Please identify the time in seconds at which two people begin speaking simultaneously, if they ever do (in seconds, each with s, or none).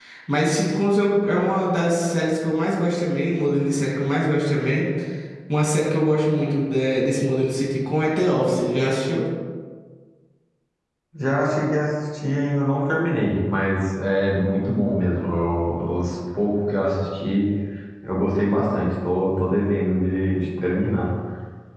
none